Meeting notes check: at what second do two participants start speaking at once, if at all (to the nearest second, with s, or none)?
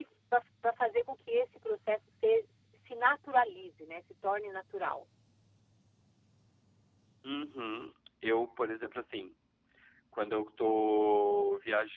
none